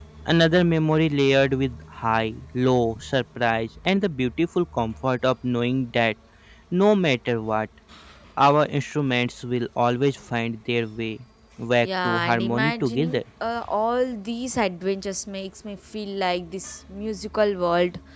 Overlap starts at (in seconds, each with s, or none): 11.8 s